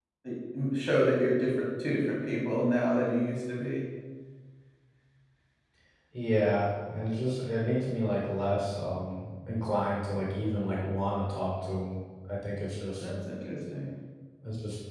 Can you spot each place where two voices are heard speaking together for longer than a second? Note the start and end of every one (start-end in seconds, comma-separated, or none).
none